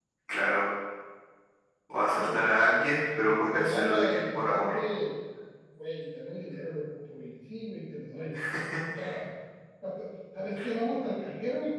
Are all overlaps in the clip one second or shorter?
No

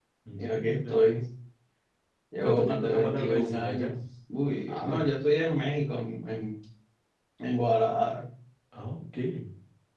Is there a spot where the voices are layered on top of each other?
Yes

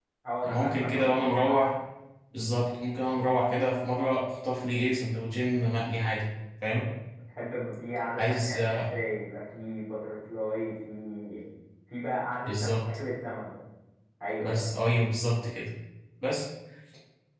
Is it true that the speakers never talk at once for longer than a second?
No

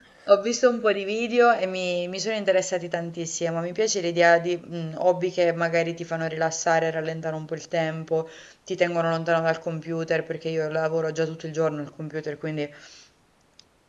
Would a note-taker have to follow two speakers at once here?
No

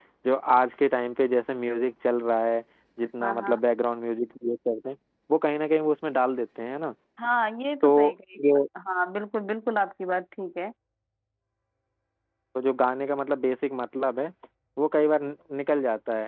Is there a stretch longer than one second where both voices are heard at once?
No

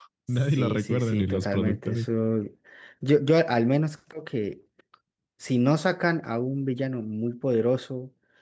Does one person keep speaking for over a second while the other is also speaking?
Yes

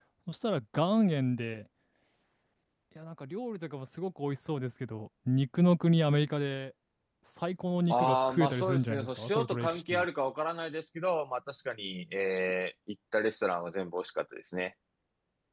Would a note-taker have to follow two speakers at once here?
Yes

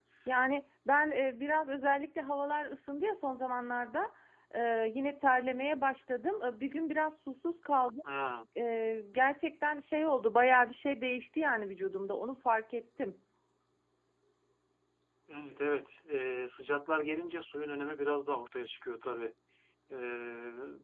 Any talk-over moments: No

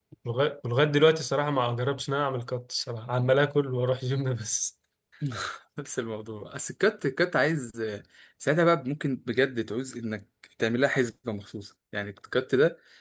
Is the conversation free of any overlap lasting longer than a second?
Yes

